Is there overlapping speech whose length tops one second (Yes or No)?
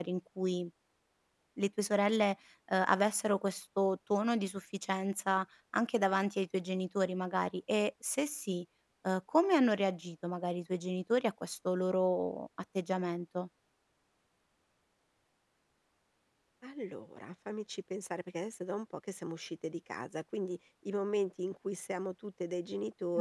No